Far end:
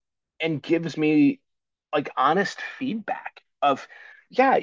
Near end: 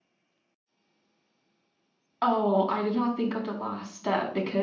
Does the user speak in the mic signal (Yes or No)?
Yes